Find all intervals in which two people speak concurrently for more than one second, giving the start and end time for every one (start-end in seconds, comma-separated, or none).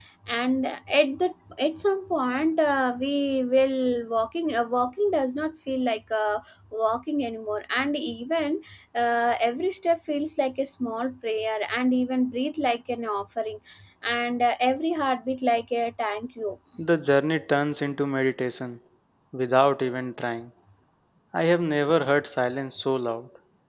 none